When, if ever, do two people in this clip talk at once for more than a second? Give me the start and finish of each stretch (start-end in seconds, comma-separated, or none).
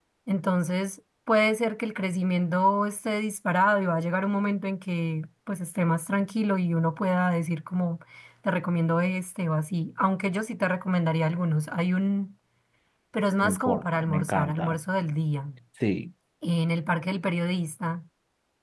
13.4-14.8